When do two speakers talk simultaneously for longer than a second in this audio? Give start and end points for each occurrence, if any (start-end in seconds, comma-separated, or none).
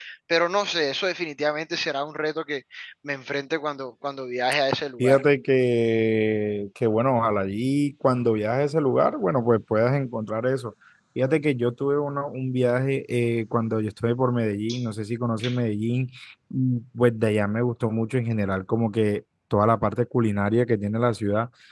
none